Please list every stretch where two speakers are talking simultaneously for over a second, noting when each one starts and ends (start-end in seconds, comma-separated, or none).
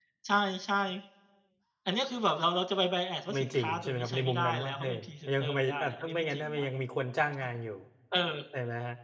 3.3-5.0, 5.4-6.7